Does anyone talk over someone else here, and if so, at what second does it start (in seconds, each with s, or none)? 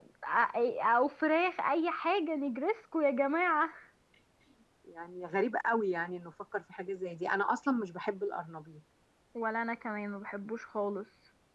none